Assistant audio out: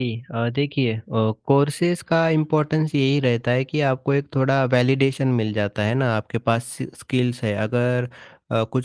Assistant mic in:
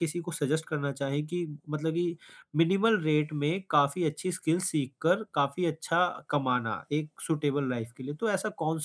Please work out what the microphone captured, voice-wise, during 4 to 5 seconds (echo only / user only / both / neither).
user only